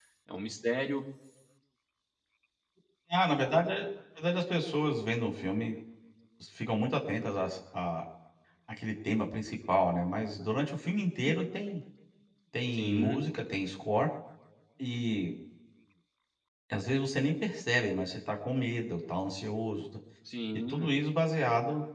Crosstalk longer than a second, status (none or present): none